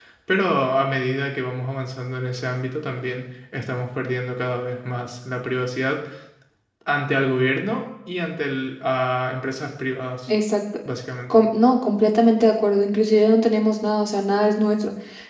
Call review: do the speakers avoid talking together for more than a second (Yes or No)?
Yes